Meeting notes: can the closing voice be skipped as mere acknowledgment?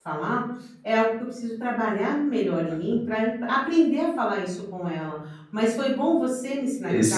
Yes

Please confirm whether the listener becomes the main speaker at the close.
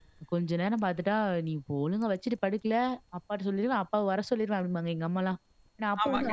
No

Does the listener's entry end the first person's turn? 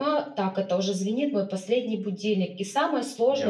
No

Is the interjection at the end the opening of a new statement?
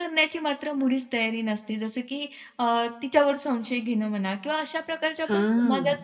No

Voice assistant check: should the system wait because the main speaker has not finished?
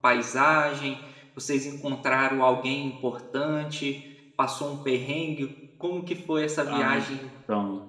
No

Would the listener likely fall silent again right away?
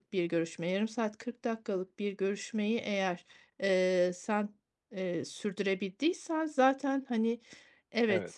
Yes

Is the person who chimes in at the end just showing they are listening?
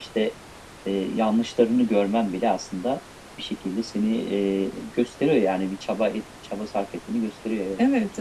No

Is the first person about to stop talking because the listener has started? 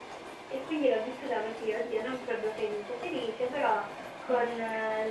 No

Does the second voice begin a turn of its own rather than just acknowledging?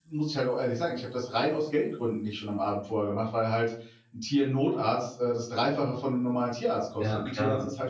No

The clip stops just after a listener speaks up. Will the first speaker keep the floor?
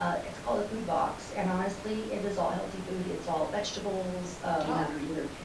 Yes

